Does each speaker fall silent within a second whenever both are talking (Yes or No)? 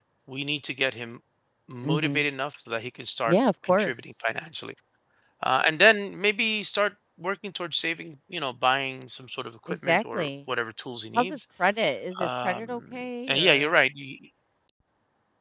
No